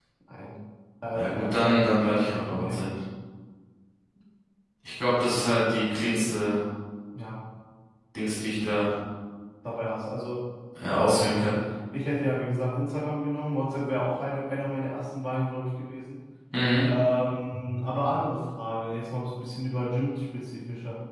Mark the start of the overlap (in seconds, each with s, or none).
1.1 s